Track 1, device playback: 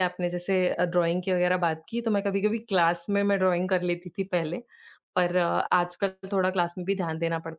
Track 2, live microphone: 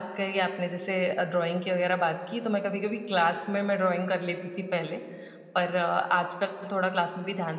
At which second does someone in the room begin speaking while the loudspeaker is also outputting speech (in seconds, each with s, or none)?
none